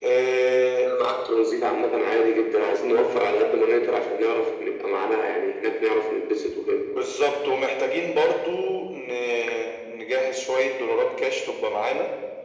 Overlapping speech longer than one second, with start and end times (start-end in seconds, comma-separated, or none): none